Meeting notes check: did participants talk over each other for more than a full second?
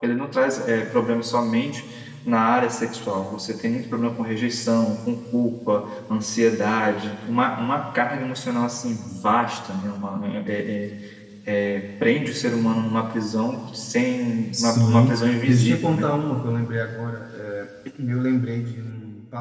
Yes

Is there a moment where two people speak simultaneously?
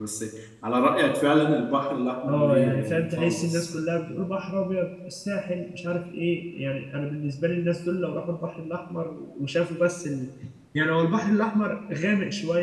Yes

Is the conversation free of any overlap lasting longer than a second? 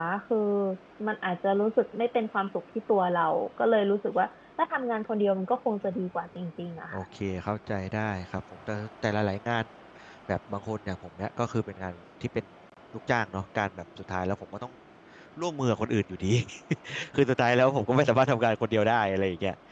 Yes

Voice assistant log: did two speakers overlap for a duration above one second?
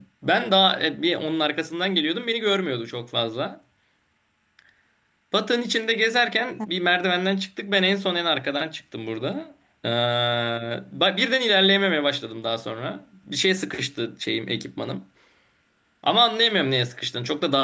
No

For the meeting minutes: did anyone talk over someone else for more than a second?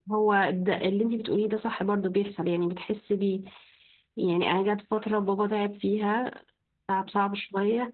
No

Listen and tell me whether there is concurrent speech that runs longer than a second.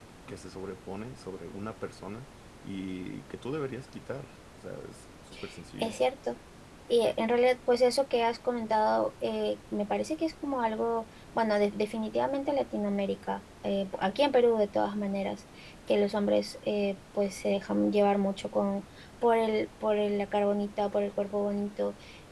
No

